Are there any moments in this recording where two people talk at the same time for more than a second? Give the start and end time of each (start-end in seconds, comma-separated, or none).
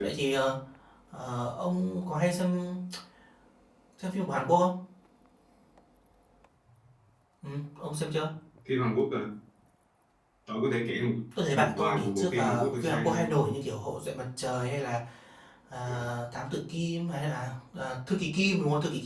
11.5-13.3